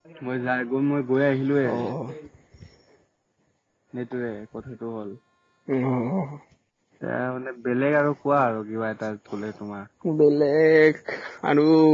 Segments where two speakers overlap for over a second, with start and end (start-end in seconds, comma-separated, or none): none